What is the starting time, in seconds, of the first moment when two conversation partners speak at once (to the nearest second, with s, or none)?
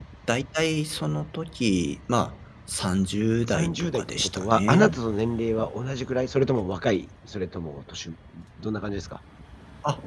3 s